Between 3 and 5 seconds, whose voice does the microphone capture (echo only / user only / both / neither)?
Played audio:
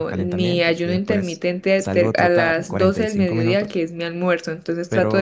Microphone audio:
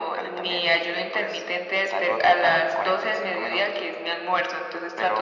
echo only